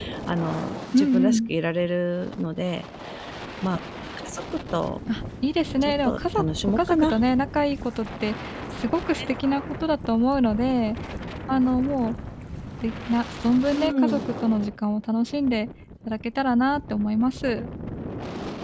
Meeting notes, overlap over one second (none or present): present